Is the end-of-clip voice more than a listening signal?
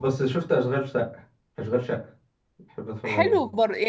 Yes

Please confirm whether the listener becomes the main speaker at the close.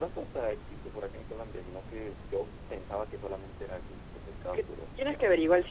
Yes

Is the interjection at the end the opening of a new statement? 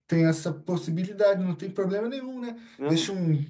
No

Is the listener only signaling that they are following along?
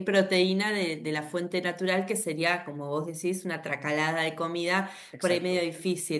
Yes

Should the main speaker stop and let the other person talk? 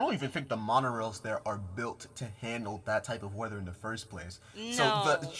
No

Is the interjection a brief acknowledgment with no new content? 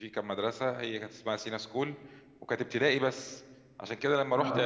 Yes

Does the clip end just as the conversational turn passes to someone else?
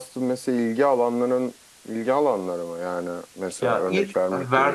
Yes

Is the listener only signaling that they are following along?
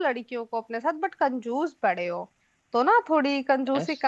Yes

